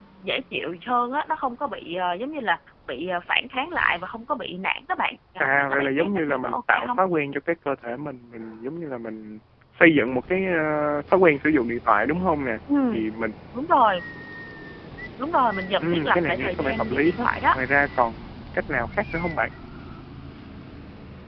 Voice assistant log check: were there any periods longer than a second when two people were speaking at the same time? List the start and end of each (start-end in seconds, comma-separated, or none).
5.4-7.0, 15.8-17.6